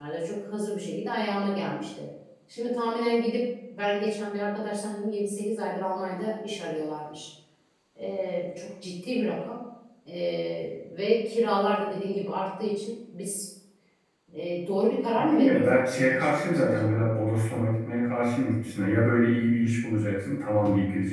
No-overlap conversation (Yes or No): No